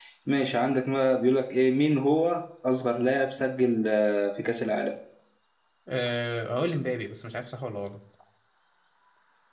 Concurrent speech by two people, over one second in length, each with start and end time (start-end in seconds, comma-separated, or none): none